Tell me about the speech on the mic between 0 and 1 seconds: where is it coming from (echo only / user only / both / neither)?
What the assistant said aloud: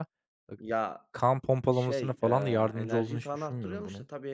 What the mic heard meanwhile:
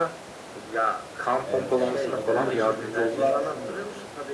echo only